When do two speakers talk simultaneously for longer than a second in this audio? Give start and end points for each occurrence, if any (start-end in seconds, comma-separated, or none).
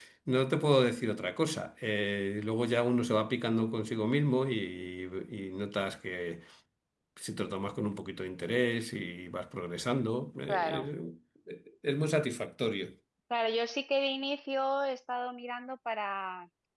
none